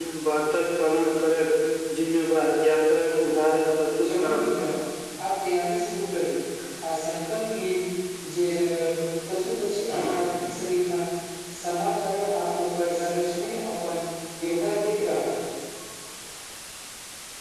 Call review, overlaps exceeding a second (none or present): none